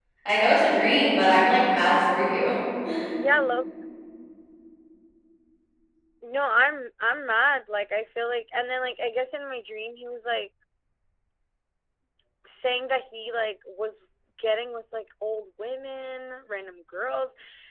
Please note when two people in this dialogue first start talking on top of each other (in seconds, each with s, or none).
none